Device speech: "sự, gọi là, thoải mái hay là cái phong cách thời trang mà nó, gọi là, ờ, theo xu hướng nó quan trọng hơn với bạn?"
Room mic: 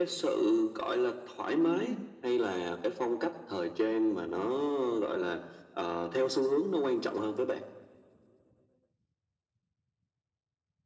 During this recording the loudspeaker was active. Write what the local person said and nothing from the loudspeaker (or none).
Ừm,